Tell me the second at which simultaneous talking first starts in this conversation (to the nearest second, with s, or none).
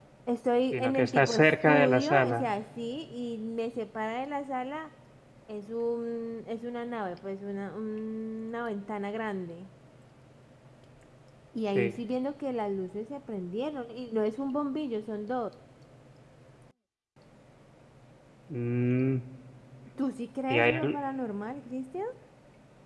1 s